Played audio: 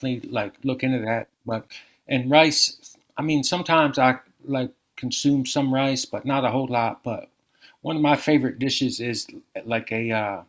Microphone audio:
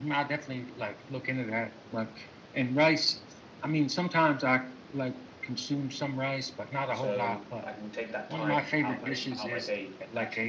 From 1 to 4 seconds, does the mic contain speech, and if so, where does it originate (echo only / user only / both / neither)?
echo only